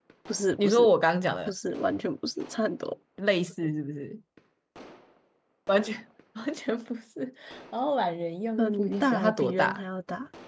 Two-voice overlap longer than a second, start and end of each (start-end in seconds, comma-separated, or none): 8.6-9.8